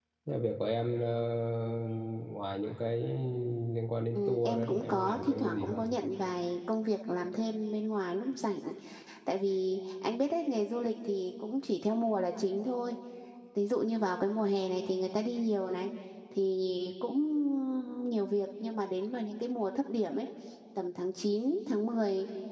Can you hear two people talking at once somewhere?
Yes, from 4.2 s

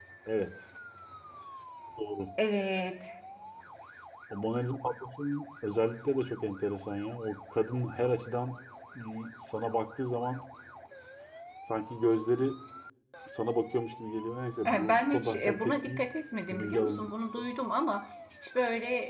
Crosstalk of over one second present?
Yes, from 14.6 s

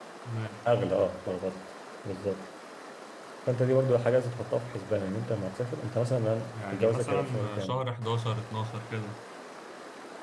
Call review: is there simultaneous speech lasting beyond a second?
Yes, from 6.5 s

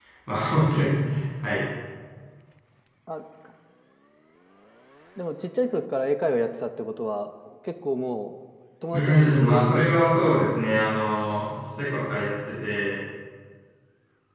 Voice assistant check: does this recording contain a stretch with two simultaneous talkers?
Yes, from 8.9 s

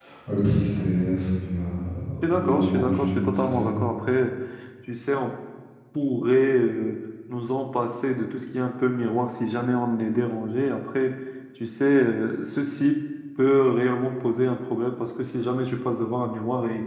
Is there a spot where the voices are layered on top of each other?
Yes, from 2.2 s

